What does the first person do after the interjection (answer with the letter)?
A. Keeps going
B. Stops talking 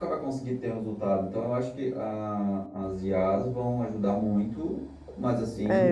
B